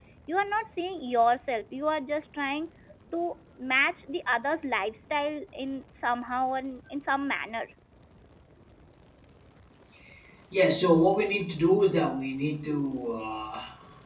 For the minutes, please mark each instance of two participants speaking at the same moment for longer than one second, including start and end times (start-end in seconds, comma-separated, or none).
none